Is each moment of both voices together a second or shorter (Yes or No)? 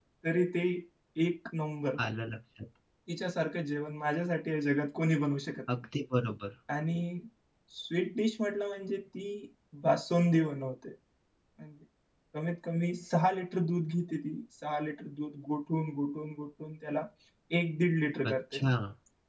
Yes